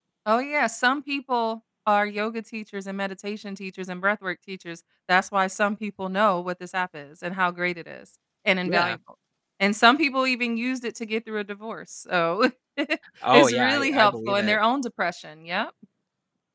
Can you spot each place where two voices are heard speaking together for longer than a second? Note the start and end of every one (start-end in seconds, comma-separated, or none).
13.3-14.6